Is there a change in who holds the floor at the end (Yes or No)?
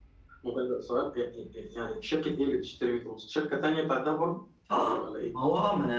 Yes